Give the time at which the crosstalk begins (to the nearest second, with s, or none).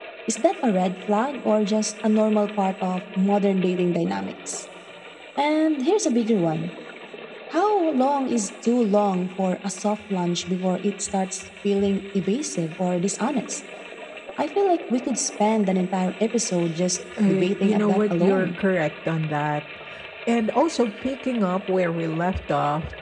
17 s